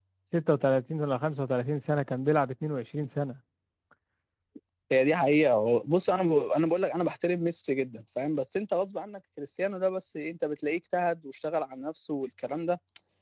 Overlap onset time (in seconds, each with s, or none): none